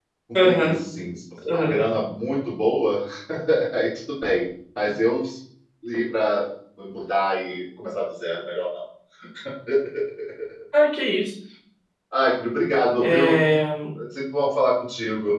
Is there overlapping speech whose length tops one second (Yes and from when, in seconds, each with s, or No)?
No